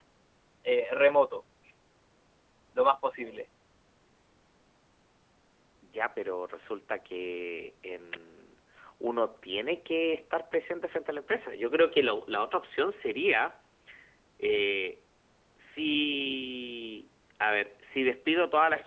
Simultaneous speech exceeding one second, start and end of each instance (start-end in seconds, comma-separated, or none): none